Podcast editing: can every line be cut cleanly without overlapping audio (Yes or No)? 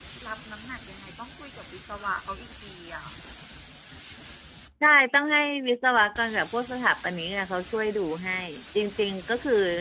Yes